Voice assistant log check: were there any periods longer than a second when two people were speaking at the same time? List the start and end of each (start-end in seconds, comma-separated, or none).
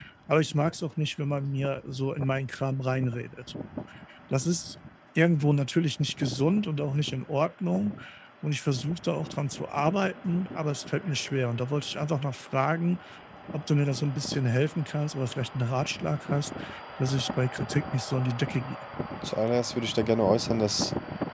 none